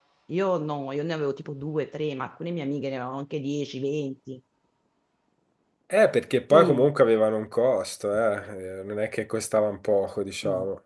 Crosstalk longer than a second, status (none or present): none